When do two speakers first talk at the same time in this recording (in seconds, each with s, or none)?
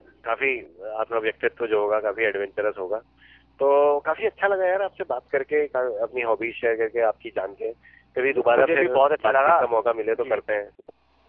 8.3 s